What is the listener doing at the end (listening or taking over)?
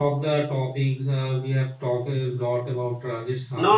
taking over